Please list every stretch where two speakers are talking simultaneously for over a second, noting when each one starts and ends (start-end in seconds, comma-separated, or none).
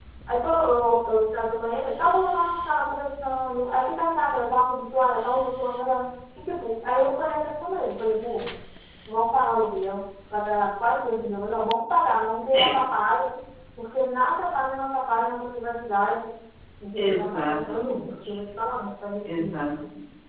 17.0-18.4